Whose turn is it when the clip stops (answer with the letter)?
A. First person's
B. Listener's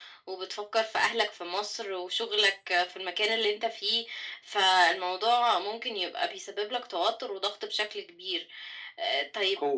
A